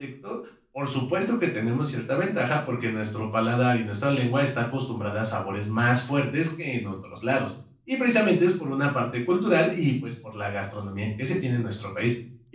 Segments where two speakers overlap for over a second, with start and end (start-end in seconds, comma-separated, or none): none